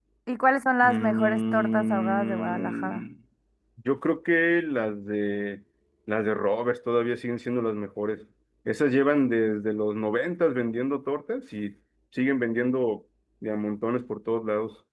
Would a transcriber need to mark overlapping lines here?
Yes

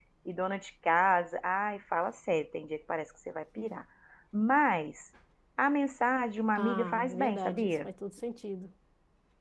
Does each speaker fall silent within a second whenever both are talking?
No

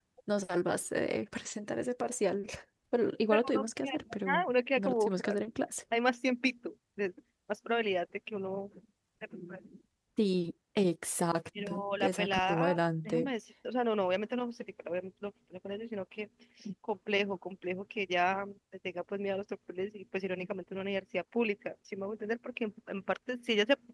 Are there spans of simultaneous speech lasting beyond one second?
Yes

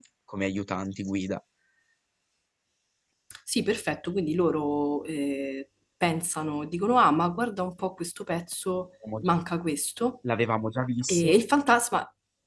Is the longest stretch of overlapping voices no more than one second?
Yes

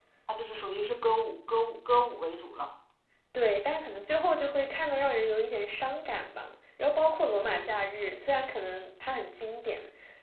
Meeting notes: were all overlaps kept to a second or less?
Yes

